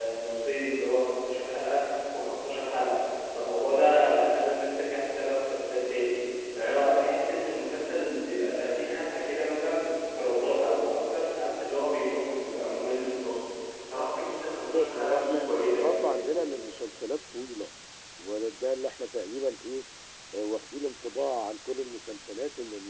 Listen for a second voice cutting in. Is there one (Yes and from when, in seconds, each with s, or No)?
Yes, from 14.7 s